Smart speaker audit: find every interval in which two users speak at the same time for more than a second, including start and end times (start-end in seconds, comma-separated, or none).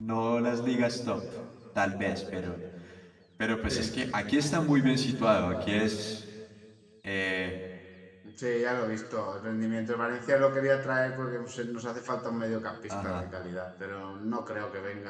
none